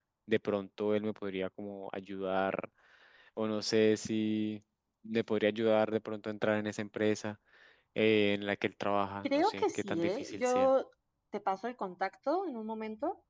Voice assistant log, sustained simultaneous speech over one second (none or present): present